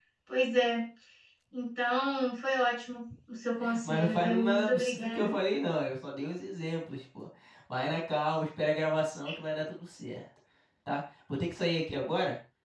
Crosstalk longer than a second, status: present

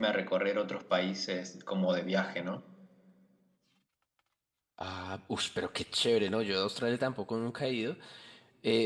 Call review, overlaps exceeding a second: none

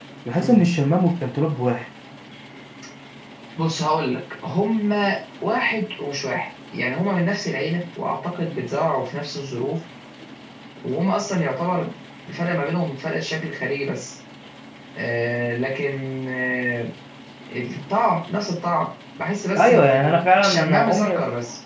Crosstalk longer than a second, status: present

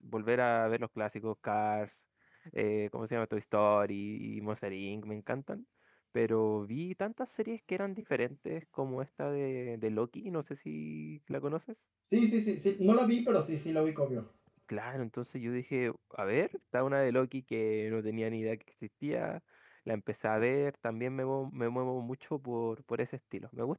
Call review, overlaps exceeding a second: none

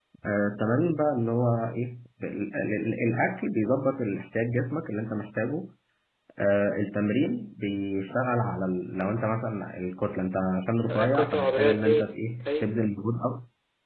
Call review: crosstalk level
present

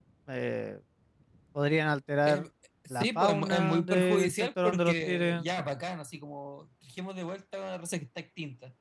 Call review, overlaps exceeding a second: present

